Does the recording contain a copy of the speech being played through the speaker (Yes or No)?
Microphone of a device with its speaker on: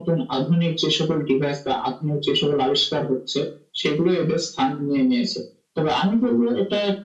Yes